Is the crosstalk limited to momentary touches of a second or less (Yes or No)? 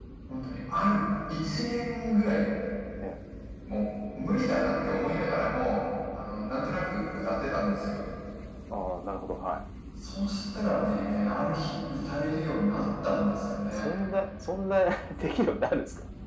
Yes